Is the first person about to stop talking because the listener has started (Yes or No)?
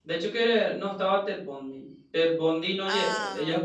No